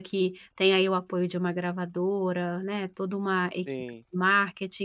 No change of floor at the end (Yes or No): Yes